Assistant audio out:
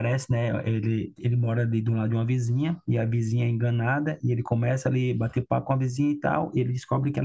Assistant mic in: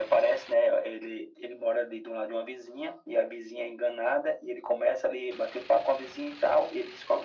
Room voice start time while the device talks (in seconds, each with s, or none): none